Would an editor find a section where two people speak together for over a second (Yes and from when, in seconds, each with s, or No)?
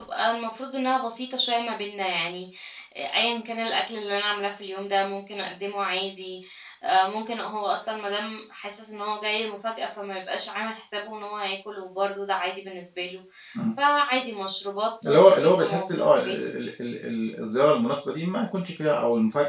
Yes, from 15.0 s